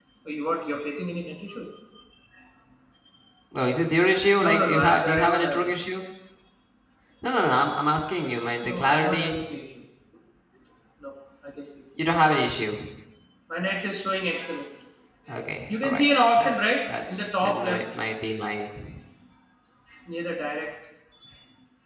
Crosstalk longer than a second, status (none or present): present